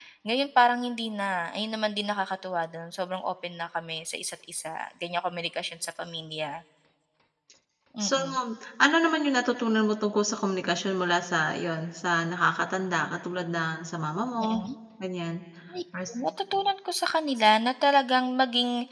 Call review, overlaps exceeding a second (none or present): none